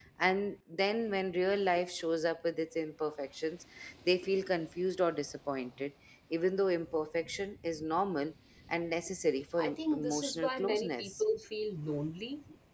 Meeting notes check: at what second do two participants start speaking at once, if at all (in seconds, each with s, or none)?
9.6 s